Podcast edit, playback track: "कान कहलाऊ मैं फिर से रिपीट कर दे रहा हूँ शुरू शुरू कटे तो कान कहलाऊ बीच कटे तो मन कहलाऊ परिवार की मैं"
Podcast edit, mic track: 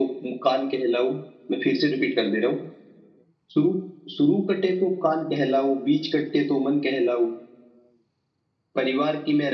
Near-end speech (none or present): none